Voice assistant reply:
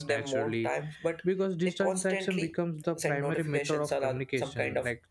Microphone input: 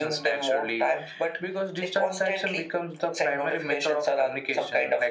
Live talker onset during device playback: none

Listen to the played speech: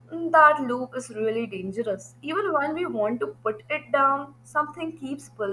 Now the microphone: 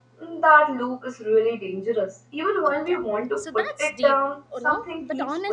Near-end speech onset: 2.7 s

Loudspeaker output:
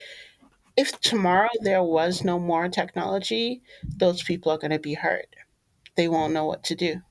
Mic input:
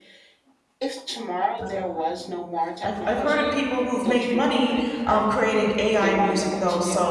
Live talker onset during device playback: 1.6 s

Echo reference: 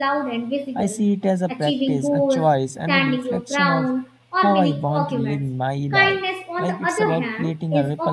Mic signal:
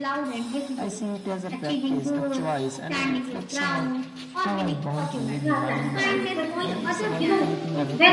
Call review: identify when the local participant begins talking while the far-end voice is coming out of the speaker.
5.4 s

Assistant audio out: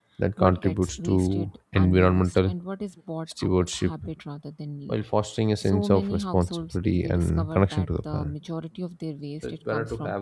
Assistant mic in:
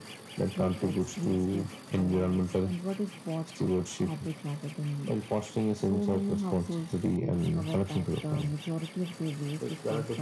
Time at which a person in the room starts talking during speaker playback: none

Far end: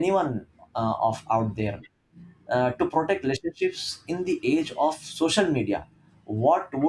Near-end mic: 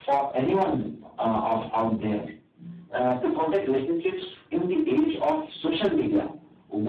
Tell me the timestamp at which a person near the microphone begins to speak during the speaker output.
none

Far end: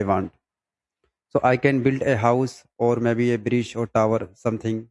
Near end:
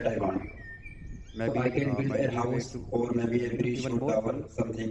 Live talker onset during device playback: 1.3 s

